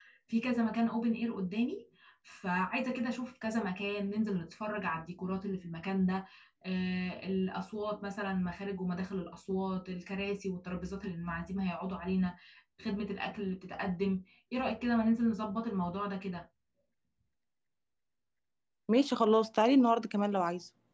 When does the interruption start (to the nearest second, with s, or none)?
none